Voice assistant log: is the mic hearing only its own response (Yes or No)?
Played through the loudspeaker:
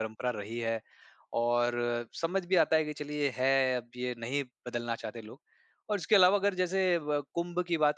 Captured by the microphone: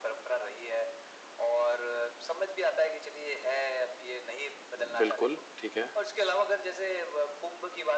No